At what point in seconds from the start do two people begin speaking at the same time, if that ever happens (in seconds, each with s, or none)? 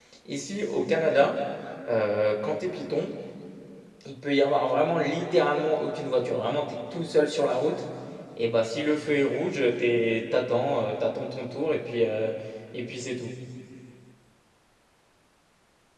none